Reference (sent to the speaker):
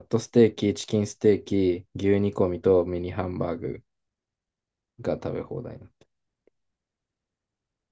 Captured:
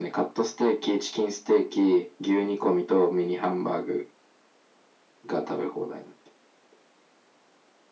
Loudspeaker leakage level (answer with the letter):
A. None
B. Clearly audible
B